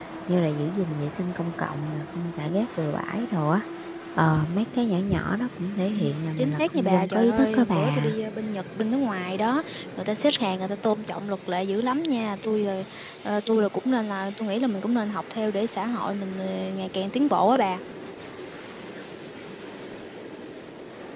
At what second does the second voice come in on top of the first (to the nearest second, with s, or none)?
6 s